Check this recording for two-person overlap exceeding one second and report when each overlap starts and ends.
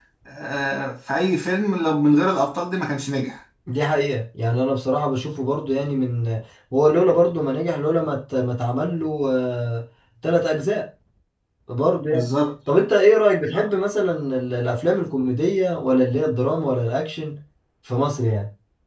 none

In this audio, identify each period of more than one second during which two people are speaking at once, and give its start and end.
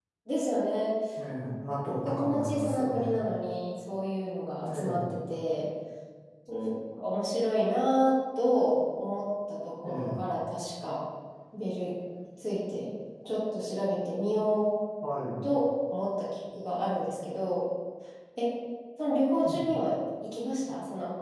2.0-3.2

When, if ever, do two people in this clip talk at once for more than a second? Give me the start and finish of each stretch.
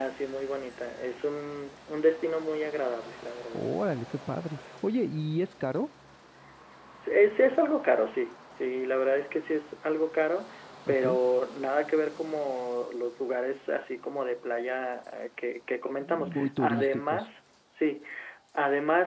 16.0-17.2

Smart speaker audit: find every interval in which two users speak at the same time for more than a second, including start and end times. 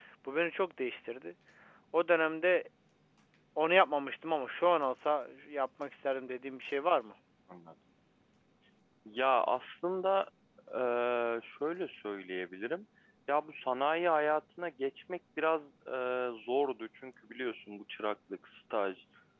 none

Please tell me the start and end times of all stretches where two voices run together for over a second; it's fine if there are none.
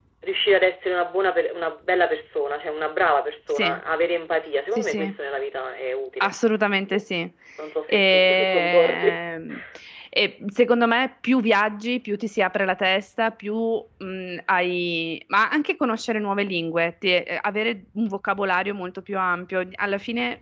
7.9-9.2

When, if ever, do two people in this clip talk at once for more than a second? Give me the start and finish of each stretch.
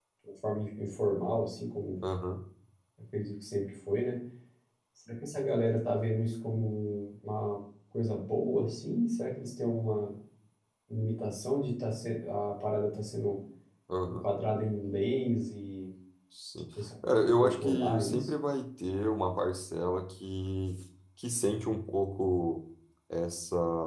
17.1-18.3

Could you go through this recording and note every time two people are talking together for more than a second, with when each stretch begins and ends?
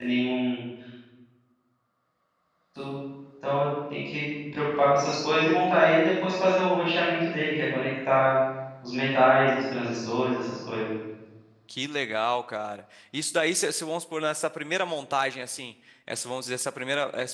none

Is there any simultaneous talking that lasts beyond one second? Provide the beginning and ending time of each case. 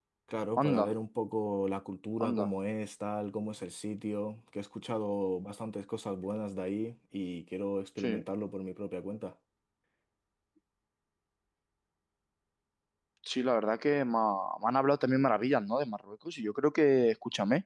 none

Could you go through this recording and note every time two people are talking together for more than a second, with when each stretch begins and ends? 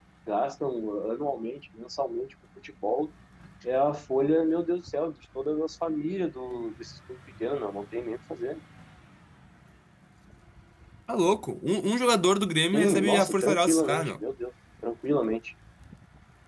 12.7-14.1

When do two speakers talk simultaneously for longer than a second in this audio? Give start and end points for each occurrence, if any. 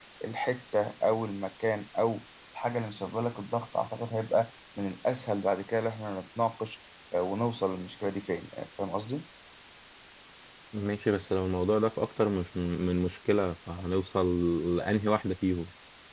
none

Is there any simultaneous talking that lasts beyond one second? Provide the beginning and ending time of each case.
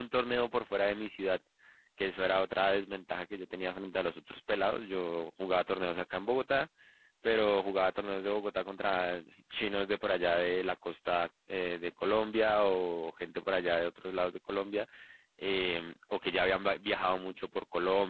none

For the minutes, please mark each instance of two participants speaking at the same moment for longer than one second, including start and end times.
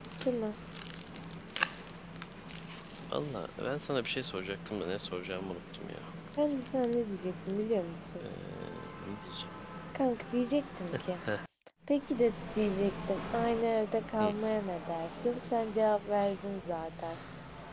none

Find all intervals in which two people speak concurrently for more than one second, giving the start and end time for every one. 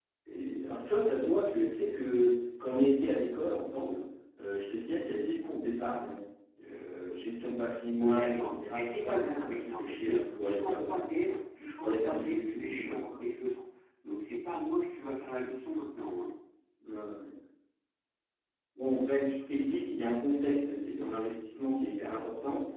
7.9-11.0, 11.8-13.3

